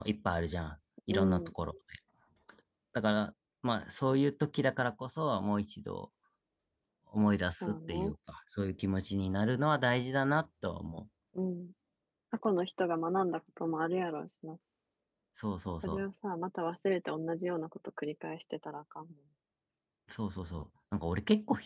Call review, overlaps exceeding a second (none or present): none